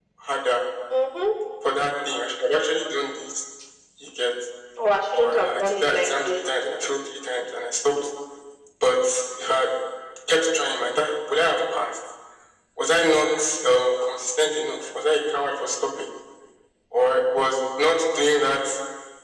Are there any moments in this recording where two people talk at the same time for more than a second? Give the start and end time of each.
5.2-6.4

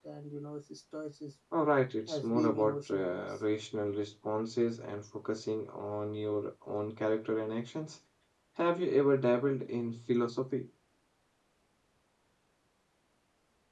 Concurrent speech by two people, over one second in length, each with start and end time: 2.1-3.4

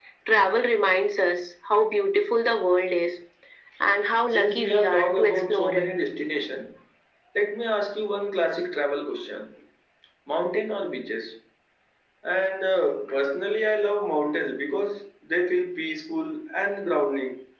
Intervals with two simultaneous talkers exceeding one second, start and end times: 4.3-5.9

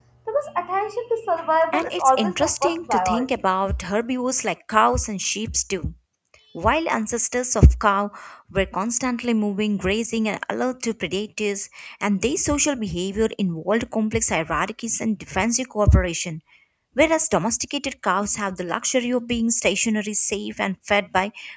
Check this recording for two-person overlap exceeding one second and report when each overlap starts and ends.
1.7-3.3

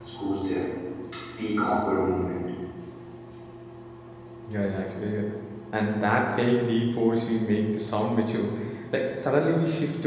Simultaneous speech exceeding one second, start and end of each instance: none

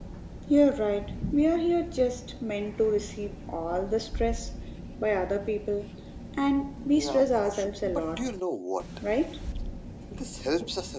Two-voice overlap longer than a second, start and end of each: 6.9-8.2

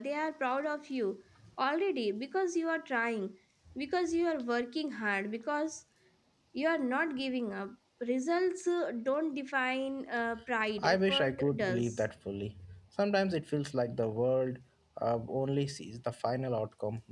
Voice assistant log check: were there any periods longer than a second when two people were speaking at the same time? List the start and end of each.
10.8-12.0

